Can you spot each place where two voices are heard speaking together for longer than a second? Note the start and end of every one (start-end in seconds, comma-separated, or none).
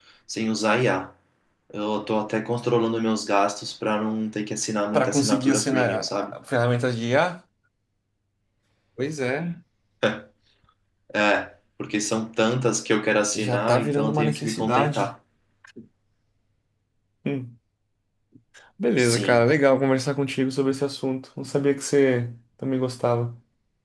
4.9-6.3, 13.3-15.1